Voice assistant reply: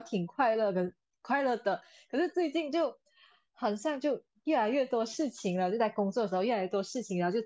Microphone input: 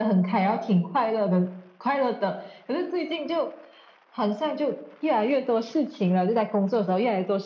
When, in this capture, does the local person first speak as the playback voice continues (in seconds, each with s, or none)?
none